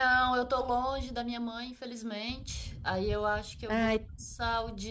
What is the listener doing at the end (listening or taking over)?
listening